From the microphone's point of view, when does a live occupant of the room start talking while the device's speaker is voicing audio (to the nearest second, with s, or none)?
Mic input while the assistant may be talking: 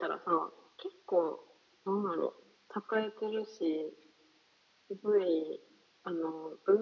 none